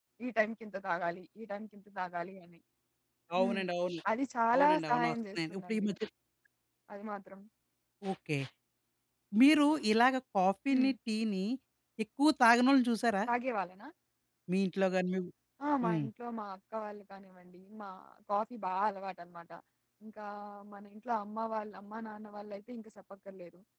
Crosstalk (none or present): present